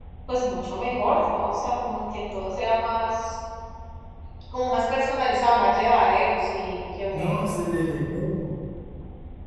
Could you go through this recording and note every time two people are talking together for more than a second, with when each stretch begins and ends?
none

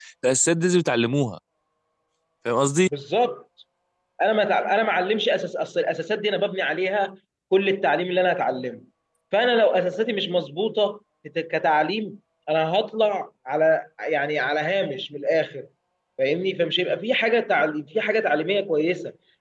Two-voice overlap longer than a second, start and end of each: none

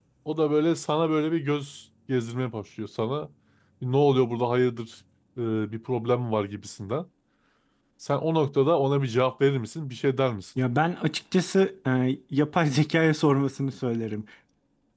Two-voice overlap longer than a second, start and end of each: none

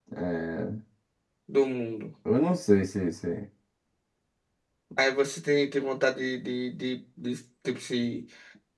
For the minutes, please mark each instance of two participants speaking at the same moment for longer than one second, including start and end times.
none

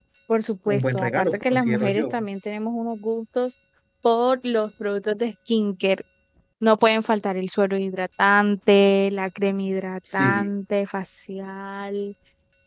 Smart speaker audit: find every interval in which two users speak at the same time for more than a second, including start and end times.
0.7-2.2

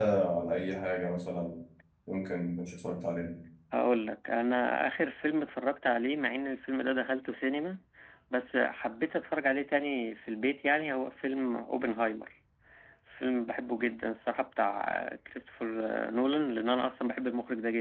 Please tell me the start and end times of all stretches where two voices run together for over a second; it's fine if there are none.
none

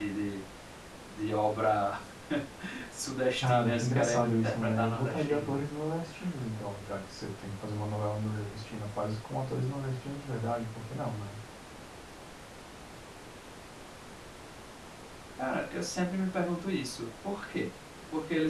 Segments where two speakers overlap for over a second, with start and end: 3.4-5.6

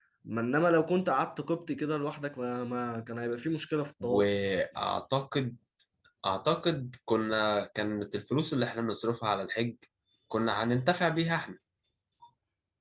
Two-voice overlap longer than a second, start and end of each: none

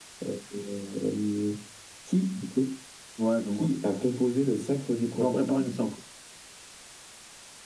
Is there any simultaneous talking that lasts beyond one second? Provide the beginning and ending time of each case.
none

